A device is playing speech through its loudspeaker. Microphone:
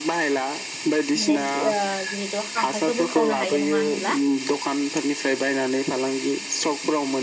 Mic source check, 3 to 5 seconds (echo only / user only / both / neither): both